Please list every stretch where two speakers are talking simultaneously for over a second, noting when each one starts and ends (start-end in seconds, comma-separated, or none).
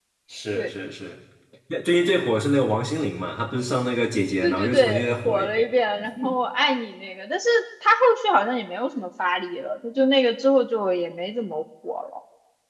4.4-5.6